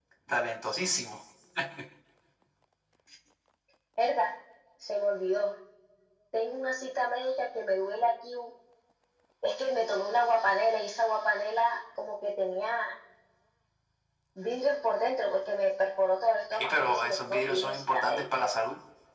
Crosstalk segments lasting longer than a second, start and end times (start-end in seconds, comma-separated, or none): 16.5-18.2